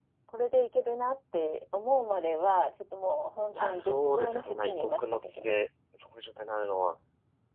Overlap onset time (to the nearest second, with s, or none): 4 s